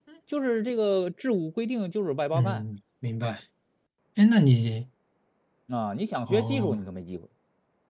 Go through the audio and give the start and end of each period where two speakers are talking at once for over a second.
none

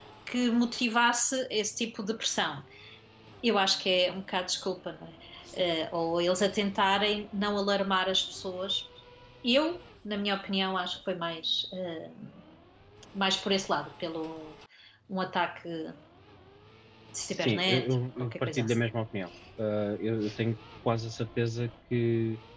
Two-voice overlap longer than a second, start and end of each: 17.3-18.8

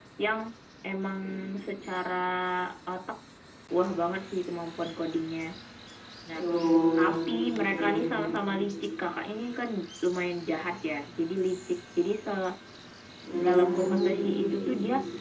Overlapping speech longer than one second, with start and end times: 13.4-14.6

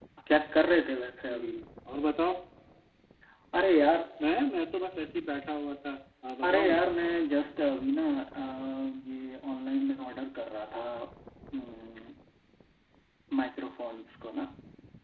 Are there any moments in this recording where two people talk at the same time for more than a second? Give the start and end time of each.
none

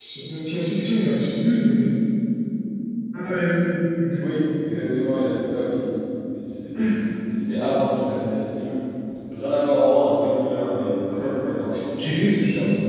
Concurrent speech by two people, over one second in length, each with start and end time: none

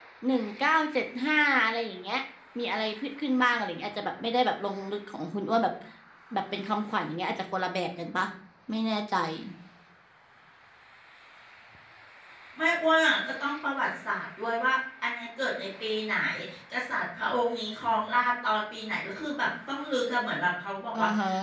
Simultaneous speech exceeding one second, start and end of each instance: none

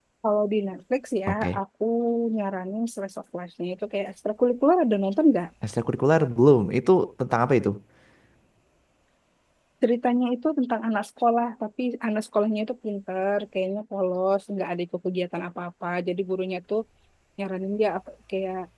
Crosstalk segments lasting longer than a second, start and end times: none

